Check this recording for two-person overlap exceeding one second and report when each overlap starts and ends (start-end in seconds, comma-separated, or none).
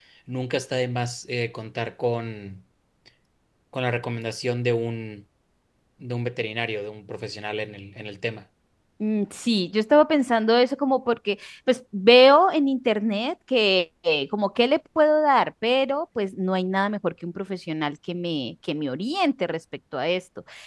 none